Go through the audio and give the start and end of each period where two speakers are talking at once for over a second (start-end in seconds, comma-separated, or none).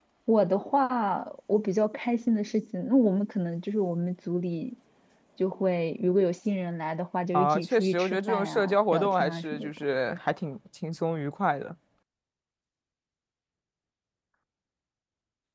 7.3-9.7